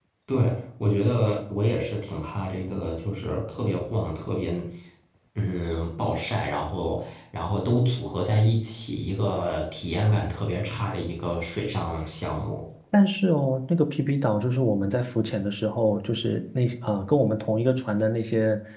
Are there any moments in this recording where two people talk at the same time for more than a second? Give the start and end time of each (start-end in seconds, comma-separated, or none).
none